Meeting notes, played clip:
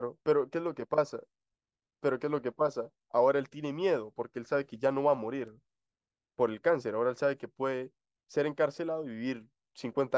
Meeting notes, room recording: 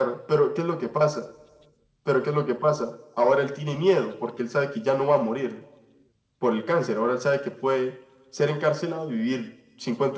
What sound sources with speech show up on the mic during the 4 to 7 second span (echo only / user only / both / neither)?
echo only